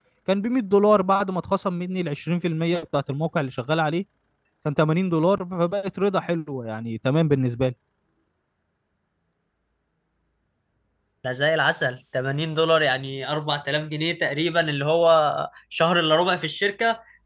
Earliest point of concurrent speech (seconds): none

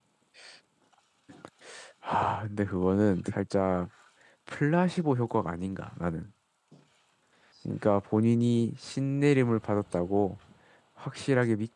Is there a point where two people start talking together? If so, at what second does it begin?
none

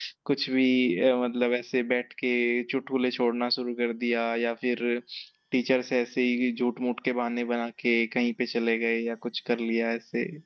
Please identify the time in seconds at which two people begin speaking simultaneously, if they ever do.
none

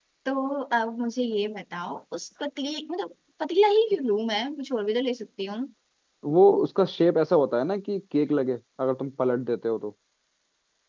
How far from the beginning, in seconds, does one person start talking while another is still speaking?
none

